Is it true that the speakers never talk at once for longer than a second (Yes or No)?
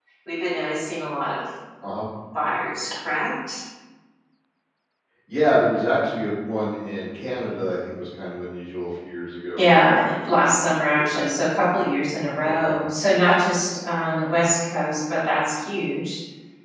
Yes